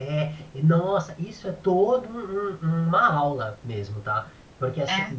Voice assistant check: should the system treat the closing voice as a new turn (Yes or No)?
No